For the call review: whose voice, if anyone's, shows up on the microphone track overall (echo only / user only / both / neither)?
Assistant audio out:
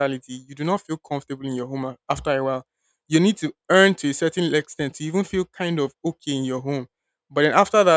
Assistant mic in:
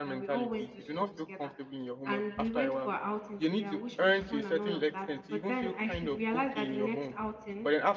both